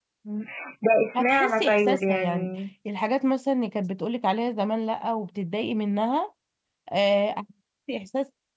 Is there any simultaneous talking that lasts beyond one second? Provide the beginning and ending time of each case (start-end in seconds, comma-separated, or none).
1.1-2.5